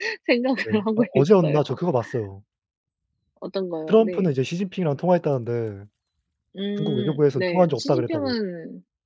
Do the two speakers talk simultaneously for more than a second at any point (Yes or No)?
Yes